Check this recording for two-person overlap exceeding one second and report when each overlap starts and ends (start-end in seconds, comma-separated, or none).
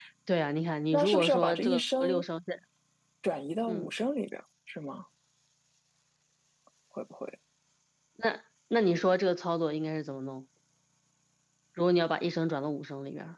0.9-2.2